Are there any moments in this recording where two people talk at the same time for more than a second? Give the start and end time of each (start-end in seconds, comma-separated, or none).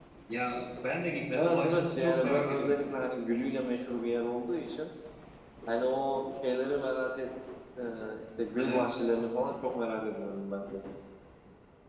1.3-2.8